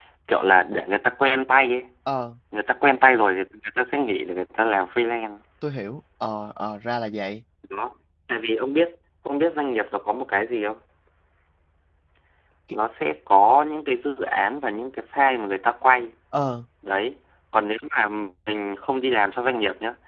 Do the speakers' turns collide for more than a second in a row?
No

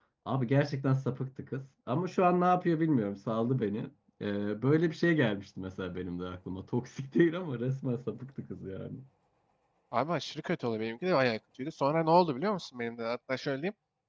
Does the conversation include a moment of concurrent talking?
No

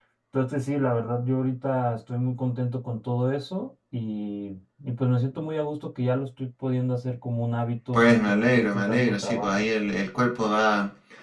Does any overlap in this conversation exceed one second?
Yes, from 8.0 s

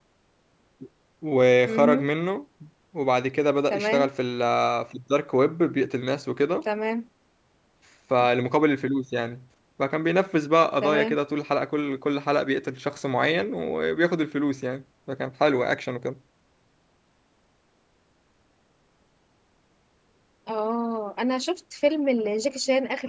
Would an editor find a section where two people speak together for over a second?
No

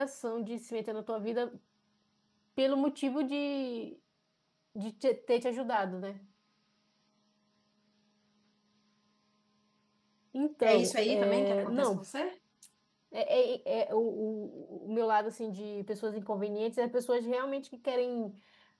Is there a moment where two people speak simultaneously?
Yes, from 10.6 s

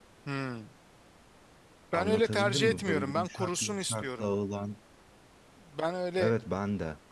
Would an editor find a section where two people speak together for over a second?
Yes, from 1.9 s

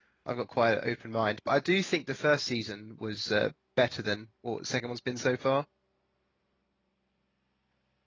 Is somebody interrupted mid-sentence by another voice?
No

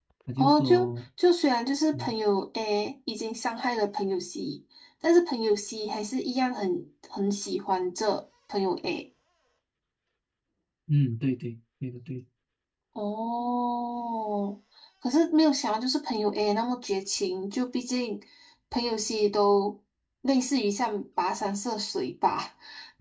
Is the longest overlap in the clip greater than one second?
No

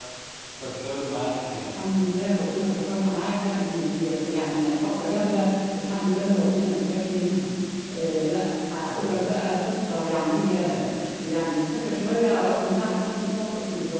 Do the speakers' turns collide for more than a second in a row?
No

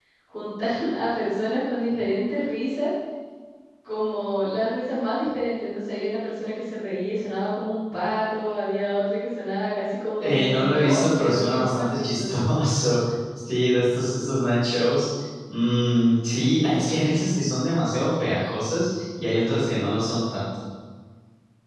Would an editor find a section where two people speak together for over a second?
Yes, from 10.2 s

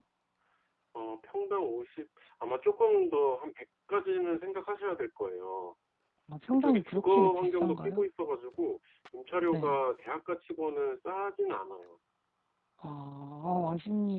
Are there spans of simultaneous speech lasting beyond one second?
Yes, from 6.5 s

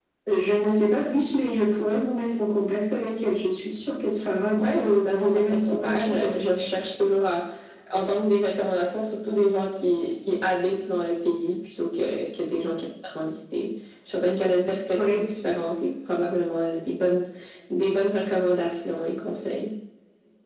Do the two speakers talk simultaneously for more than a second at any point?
Yes, from 4.6 s

